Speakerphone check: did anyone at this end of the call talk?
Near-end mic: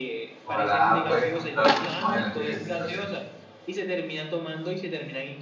Yes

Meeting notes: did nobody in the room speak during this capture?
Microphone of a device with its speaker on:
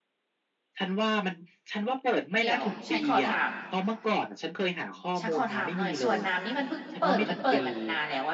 No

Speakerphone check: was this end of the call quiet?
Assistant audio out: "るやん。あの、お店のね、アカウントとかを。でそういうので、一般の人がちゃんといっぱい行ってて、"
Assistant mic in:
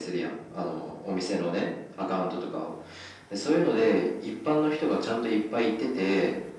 Yes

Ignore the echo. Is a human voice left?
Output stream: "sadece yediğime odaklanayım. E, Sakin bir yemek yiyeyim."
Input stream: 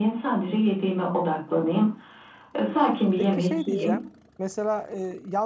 Yes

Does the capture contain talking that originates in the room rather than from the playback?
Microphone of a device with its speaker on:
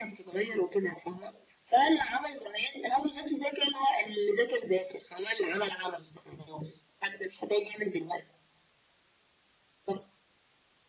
No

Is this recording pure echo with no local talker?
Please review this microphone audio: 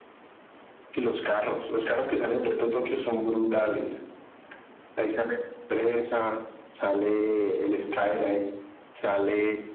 Yes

